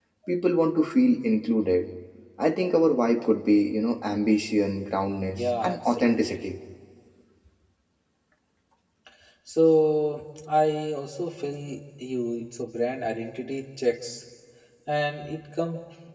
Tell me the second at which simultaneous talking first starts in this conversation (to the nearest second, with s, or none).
5 s